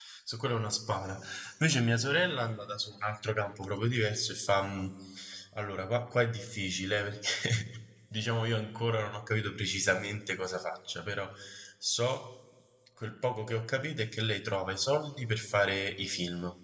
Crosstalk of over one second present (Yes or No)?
No